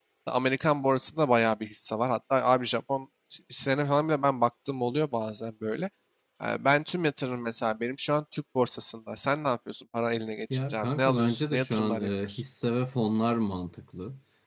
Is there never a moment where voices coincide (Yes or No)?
No